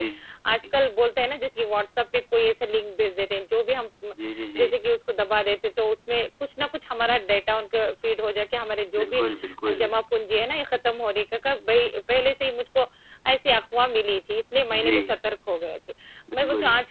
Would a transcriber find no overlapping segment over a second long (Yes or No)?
Yes